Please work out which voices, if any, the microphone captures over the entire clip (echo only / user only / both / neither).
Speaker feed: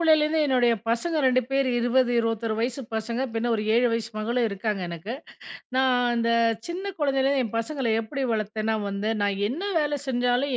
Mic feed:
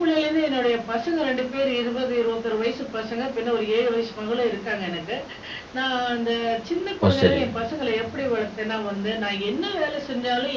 both